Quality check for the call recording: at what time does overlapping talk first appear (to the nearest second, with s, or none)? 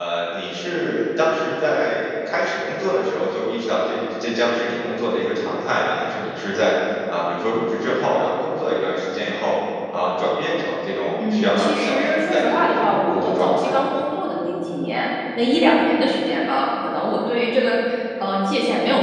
11 s